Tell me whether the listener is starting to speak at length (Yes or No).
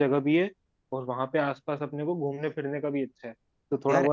No